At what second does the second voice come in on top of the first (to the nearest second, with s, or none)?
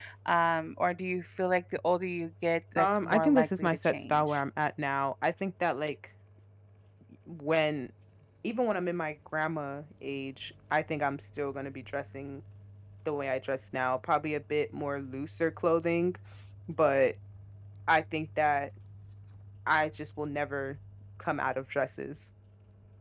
3 s